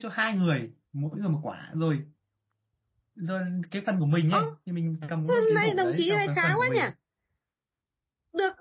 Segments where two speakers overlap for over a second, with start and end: 5.3-6.8

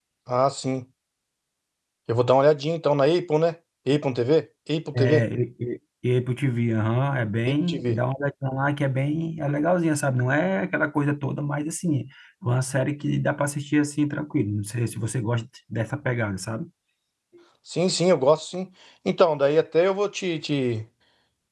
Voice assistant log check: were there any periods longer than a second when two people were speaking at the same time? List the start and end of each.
none

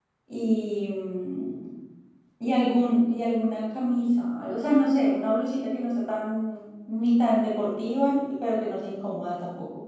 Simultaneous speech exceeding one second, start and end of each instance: none

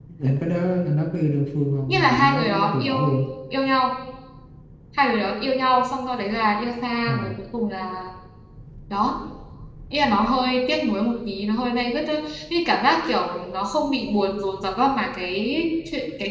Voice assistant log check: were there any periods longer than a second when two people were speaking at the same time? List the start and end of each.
1.9-3.2

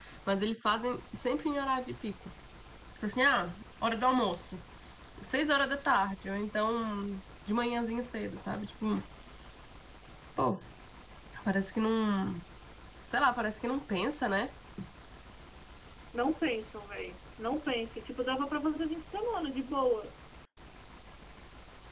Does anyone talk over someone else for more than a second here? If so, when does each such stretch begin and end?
none

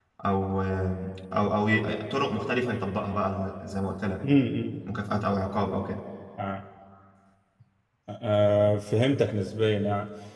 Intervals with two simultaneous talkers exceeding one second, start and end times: none

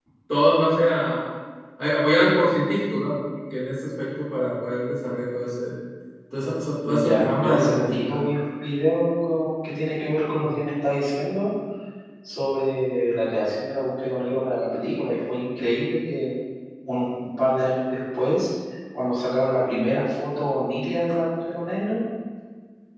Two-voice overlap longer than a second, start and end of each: 6.8-8.2

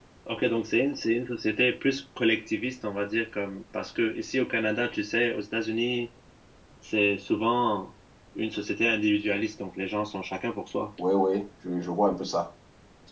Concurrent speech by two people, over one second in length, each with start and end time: none

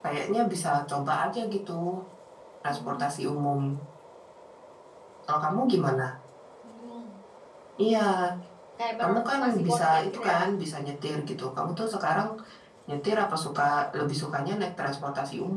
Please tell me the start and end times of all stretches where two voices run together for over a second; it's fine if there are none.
9.0-10.4

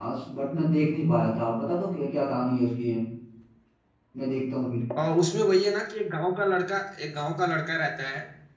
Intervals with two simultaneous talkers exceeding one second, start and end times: none

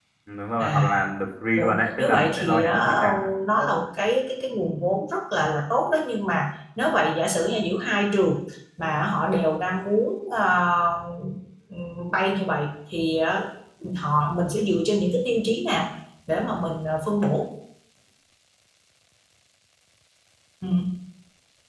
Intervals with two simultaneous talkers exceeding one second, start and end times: 1.6-3.0

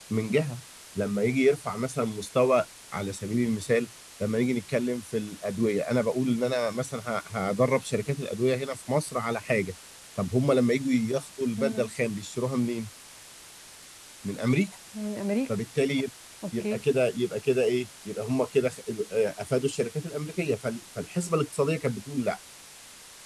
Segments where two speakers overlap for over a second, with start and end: none

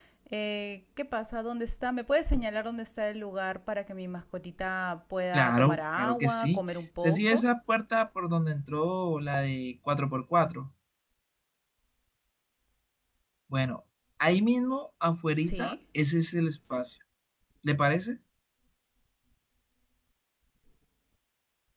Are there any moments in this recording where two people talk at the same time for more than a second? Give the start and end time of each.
5.3-7.5

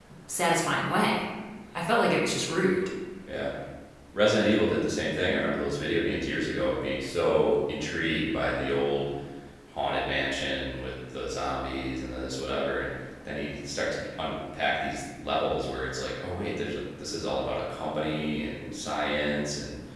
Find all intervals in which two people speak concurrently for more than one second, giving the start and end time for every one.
none

